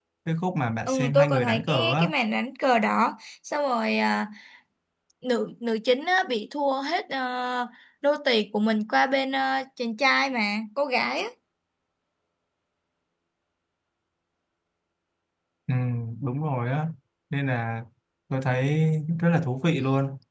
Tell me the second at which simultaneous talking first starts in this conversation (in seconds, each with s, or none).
0.9 s